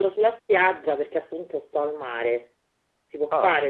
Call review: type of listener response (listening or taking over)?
listening